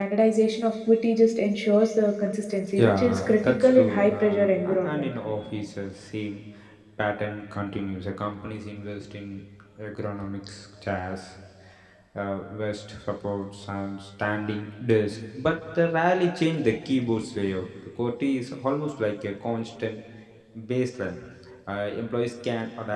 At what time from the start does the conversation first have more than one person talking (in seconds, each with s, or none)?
2.8 s